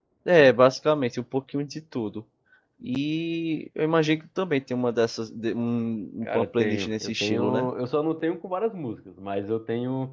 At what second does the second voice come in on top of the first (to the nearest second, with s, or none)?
6 s